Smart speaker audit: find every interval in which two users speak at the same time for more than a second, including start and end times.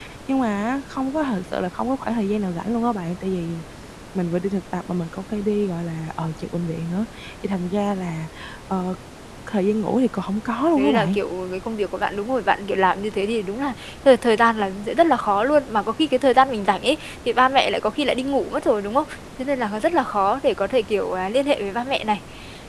none

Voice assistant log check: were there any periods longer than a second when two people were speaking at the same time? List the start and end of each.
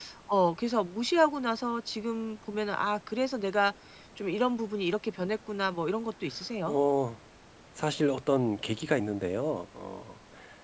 none

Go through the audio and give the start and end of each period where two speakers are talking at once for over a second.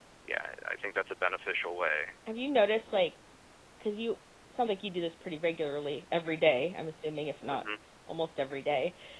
none

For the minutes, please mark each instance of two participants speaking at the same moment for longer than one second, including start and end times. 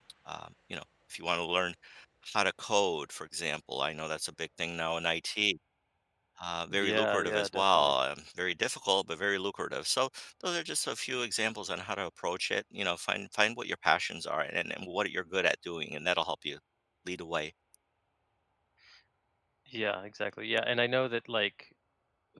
6.7-7.9

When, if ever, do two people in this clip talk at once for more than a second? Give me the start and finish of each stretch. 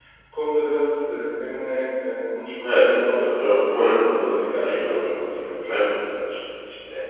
2.6-5.7

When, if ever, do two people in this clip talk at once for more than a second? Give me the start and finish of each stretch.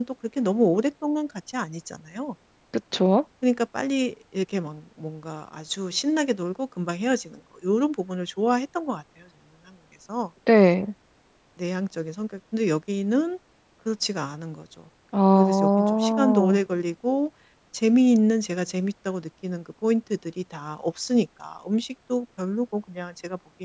15.3-16.6

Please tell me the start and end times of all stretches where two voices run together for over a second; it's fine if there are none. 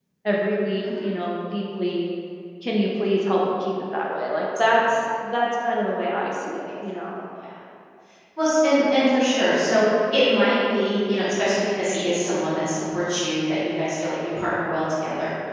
none

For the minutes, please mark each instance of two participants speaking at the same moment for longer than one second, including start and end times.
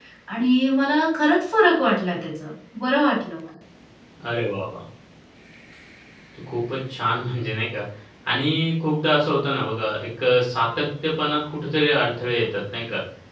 none

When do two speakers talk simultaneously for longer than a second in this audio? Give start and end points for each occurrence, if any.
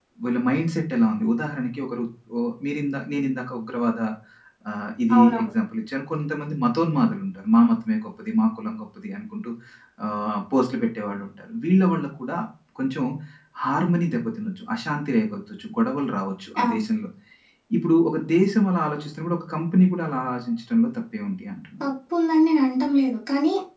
none

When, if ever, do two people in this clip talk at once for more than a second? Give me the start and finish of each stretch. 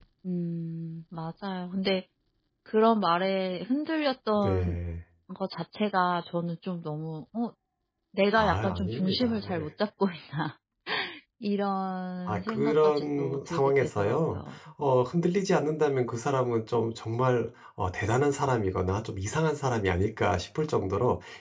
8.3-9.6, 12.3-14.4

